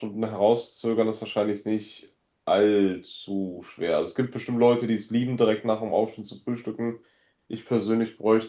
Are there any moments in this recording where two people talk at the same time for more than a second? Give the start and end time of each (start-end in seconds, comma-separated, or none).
none